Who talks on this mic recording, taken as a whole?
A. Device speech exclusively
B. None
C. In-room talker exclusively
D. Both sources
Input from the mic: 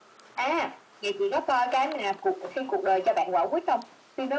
A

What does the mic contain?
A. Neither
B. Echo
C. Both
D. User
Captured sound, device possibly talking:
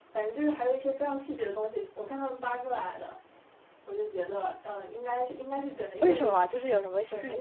C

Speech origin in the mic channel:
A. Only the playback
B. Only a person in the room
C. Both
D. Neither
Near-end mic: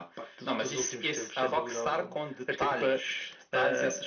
A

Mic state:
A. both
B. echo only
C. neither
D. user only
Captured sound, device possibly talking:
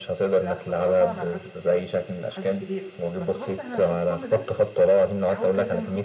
A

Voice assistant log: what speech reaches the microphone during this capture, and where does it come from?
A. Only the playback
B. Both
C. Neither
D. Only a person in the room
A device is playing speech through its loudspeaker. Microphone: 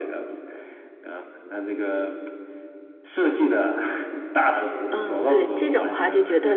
B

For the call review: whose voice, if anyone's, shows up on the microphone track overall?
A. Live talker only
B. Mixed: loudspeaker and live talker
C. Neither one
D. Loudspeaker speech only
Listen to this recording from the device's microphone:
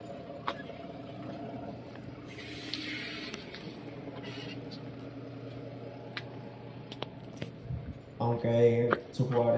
A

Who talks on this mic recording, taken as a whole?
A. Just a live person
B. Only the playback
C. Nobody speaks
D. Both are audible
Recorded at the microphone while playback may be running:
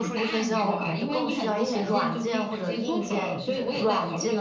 D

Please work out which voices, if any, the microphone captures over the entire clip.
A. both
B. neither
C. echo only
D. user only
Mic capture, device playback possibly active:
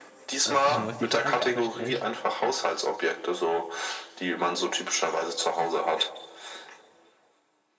A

